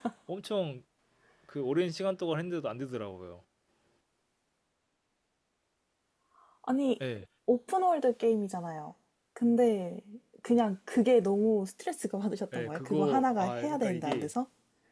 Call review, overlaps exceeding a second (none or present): present